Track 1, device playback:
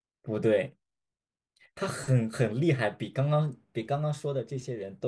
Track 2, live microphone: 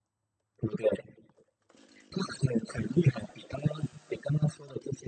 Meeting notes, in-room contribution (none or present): none